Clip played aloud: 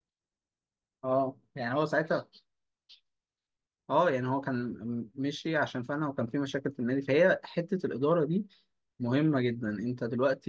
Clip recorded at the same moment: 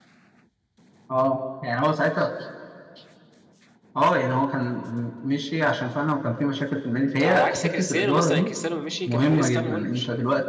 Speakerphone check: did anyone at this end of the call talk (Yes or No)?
Yes